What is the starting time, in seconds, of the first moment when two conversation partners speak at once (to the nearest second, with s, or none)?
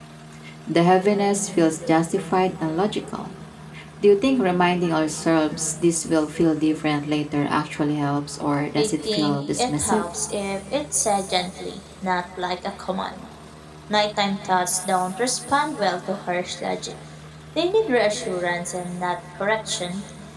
9 s